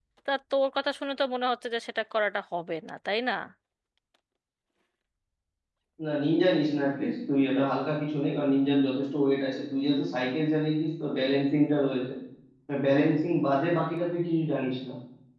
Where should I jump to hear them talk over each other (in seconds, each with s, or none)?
none